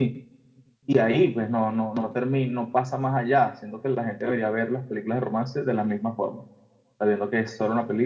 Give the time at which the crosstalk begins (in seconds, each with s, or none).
none